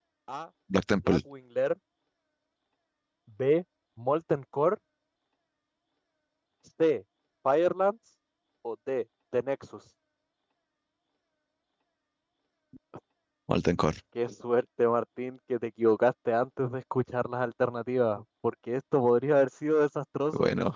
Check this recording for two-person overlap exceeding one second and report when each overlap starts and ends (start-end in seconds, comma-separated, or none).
none